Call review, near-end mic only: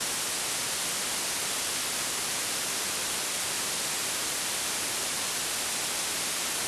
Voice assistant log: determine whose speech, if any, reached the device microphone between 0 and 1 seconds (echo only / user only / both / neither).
neither